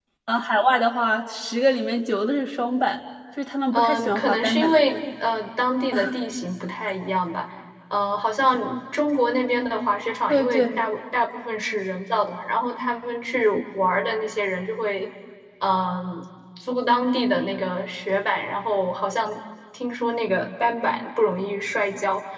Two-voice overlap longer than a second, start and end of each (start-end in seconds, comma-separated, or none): 3.7-5.0